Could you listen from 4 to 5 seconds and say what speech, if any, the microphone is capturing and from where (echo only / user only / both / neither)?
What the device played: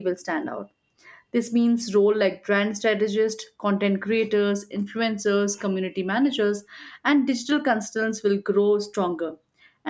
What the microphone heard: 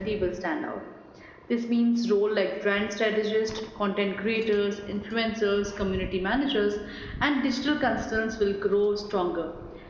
echo only